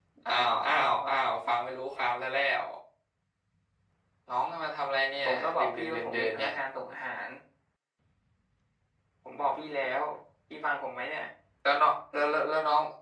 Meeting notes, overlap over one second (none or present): present